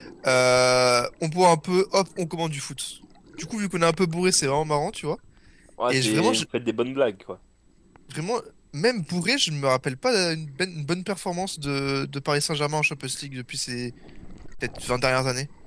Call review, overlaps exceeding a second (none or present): none